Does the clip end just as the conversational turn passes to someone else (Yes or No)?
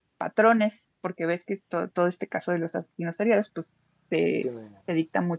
No